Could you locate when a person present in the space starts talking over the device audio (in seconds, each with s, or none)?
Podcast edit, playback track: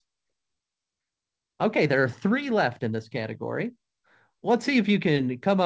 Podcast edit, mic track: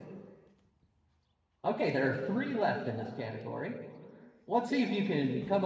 none